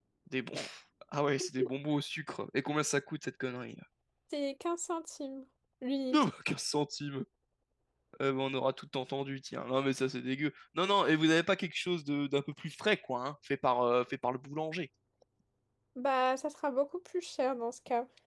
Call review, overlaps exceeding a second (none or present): none